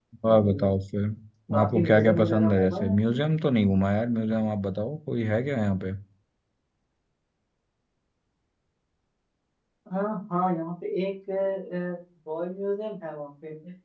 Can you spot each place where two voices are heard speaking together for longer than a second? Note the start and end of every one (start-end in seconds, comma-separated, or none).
1.6-3.2